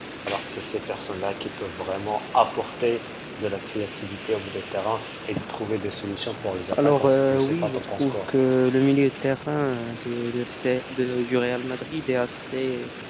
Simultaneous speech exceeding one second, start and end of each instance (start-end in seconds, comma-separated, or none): 6.8-8.2